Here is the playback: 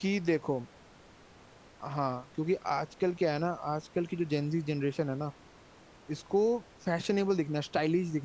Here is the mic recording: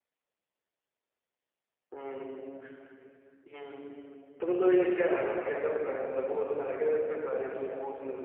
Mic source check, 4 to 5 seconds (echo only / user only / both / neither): user only